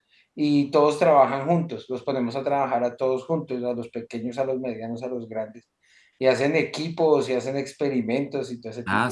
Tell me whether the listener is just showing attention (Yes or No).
No